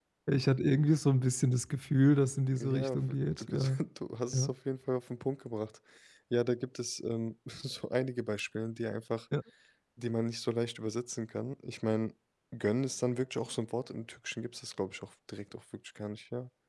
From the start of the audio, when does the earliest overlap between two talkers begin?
2.6 s

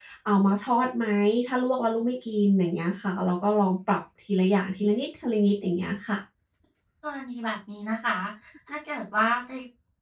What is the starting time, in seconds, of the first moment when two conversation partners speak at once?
none

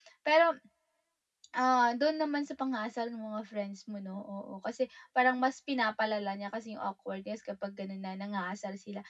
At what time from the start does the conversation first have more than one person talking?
none

